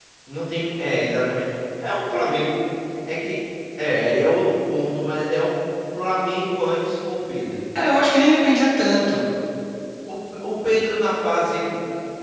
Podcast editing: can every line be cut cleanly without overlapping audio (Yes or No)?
Yes